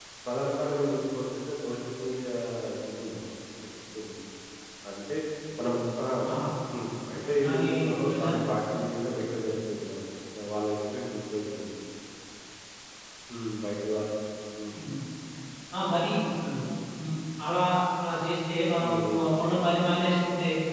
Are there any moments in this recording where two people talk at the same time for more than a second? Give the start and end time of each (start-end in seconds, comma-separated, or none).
7.3-8.5